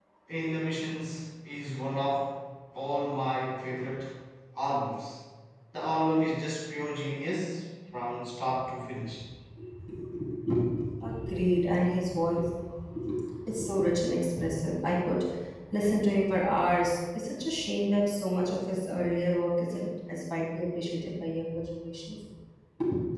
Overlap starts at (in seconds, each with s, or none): none